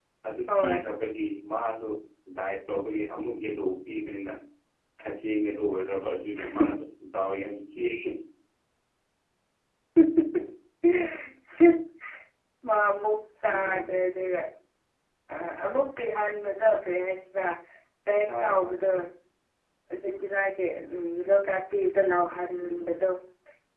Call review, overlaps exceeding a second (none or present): none